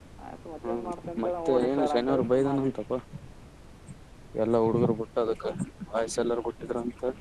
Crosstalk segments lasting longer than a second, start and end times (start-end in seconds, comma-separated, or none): 1.4-2.7